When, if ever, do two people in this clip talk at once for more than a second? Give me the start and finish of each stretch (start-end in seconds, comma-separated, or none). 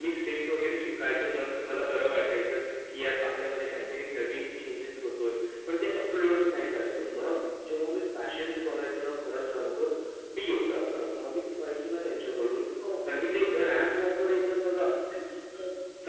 none